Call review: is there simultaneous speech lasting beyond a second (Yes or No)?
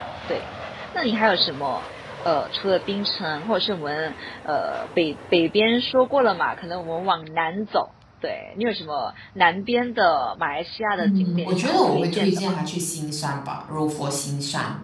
Yes